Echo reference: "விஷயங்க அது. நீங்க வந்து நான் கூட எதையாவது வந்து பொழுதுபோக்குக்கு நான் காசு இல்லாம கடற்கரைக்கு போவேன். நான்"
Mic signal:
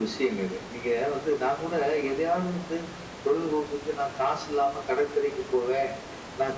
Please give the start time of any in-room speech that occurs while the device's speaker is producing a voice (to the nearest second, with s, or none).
none